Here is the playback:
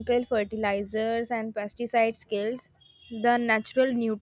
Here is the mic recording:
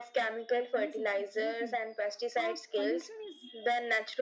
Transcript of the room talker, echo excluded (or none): yes yes exactly uh pollution is